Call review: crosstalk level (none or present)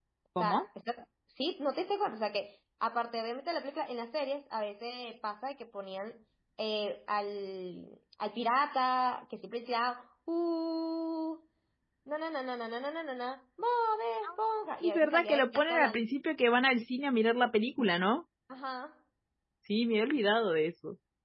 present